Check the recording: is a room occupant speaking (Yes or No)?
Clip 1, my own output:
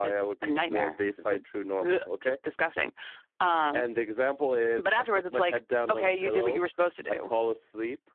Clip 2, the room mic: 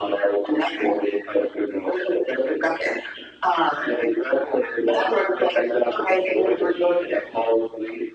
No